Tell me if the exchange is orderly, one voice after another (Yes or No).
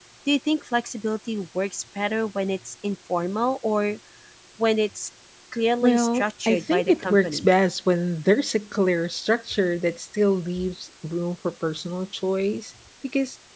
No